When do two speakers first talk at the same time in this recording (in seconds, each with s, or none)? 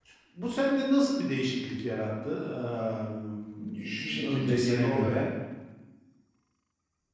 3.6 s